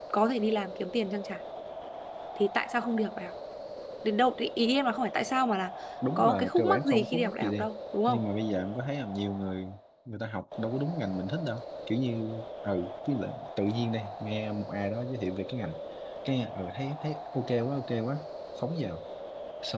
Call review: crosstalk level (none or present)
present